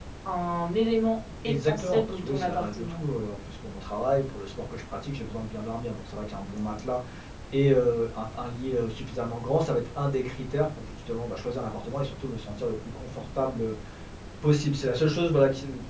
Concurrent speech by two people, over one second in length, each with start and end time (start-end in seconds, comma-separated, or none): 1.4-3.0